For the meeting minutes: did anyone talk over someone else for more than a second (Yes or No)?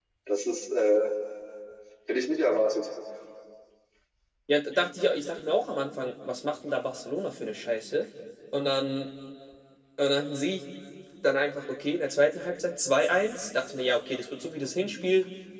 No